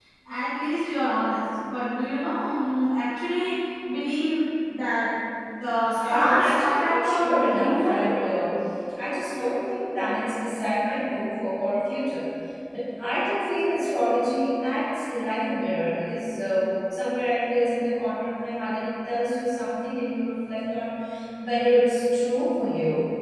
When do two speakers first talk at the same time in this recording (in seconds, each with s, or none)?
6.0 s